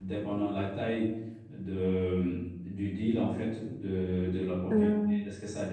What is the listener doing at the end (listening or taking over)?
listening